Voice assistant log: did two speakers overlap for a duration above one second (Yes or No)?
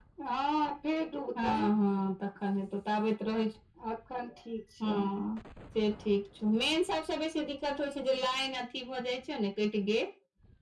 No